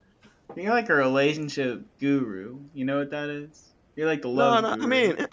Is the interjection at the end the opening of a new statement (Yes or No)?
Yes